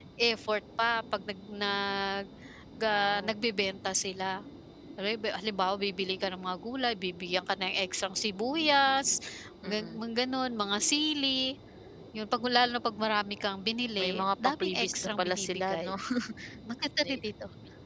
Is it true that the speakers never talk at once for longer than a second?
No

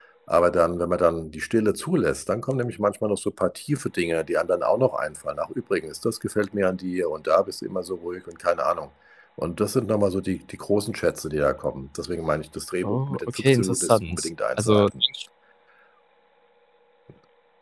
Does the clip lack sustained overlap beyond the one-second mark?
No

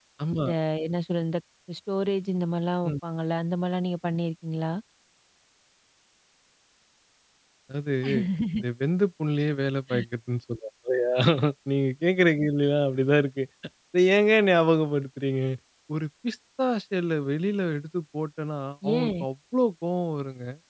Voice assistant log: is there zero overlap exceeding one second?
Yes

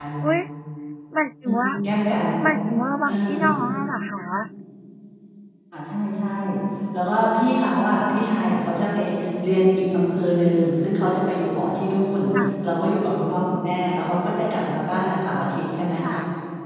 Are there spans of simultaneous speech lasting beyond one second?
No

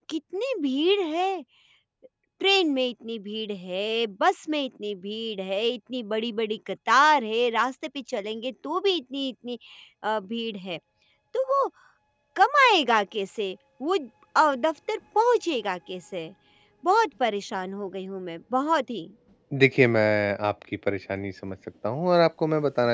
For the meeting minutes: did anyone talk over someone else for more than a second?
No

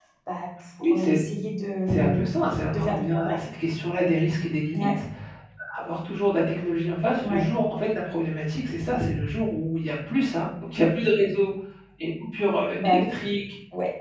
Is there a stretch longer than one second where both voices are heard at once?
Yes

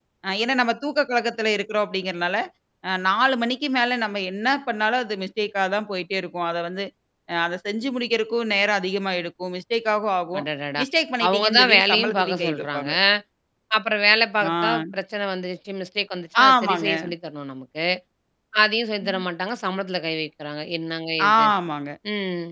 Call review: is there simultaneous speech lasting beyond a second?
Yes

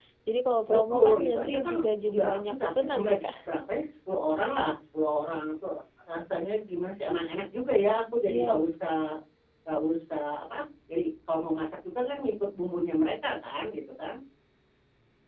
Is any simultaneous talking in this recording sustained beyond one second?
Yes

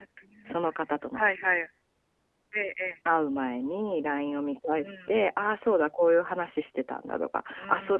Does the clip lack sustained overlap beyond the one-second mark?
Yes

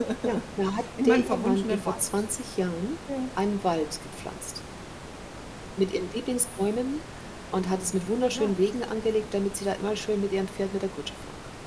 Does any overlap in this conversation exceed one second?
Yes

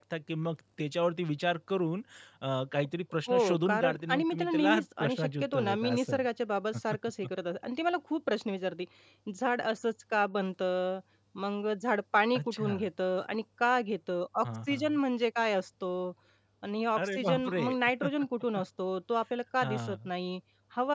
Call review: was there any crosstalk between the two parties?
Yes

